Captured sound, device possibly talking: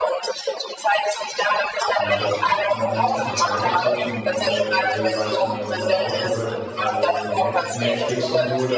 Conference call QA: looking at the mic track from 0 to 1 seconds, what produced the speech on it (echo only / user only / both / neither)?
echo only